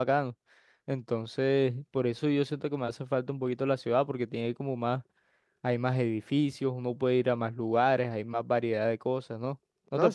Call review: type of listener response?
taking over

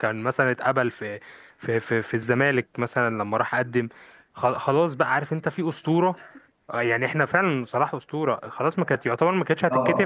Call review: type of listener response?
listening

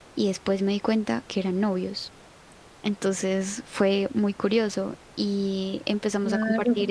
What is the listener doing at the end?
listening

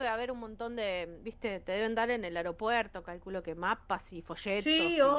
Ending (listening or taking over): taking over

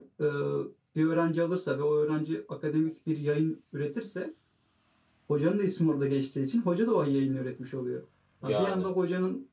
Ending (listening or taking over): listening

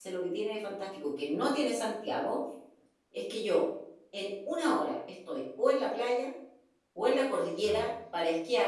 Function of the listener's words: listening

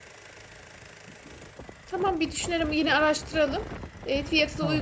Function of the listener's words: listening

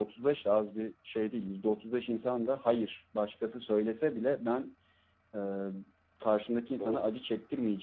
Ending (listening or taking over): listening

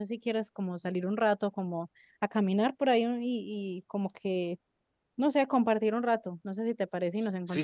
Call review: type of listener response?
taking over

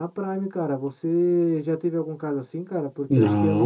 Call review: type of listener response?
listening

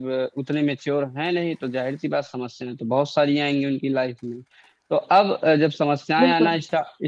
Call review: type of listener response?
listening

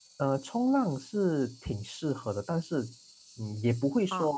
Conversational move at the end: listening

